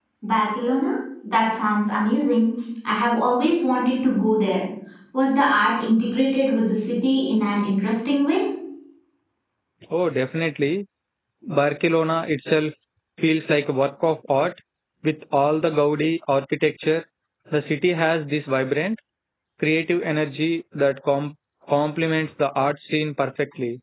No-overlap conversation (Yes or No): Yes